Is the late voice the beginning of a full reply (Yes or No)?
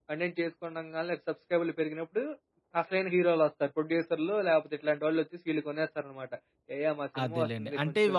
Yes